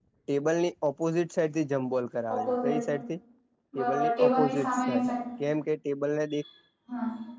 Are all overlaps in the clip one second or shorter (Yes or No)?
No